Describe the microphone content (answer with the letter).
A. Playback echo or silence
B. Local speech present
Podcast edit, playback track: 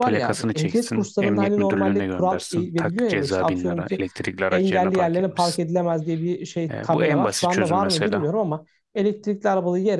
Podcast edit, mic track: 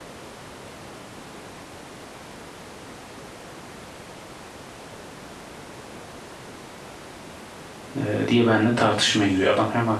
B